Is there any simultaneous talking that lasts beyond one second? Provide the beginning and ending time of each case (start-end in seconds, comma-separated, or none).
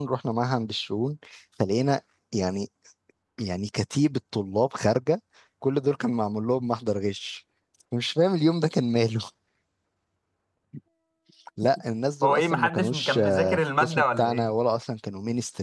12.2-14.5